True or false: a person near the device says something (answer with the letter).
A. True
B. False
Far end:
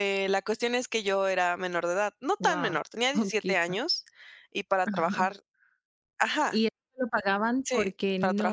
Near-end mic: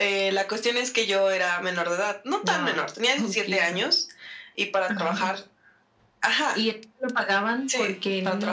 B